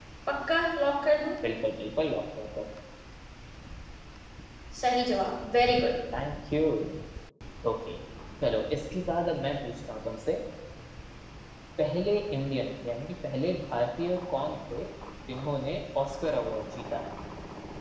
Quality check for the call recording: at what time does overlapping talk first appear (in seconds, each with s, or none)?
none